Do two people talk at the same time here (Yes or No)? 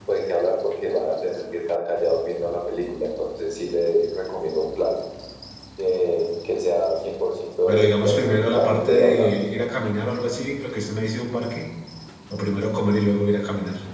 Yes